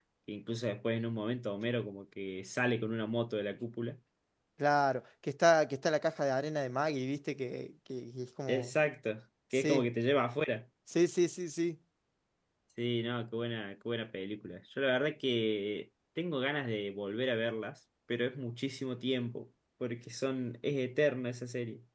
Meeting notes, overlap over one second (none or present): none